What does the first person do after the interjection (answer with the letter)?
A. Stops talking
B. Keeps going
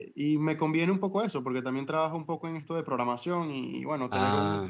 B